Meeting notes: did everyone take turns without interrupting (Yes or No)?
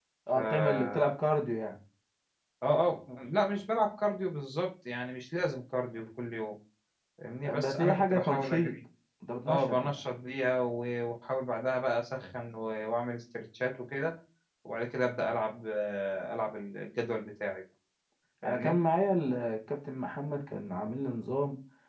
No